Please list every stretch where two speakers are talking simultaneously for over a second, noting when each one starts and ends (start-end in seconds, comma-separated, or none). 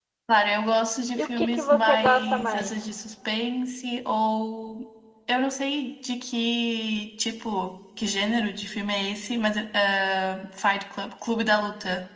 1.2-2.7